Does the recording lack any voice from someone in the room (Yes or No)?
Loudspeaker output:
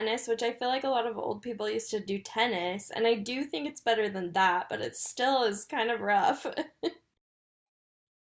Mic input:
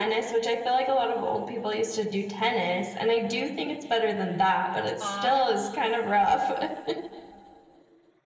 No